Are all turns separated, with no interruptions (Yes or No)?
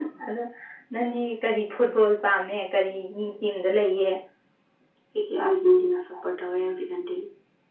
Yes